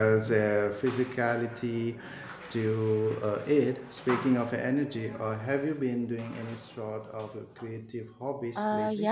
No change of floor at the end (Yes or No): No